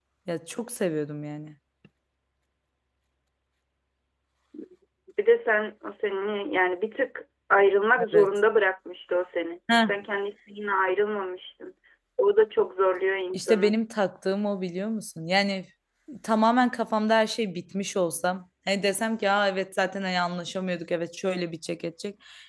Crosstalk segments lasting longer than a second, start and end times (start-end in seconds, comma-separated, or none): none